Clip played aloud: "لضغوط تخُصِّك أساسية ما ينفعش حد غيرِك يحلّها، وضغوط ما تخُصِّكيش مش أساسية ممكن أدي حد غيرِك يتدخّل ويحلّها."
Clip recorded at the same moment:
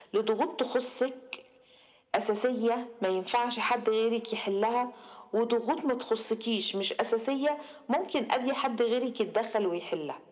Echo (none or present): present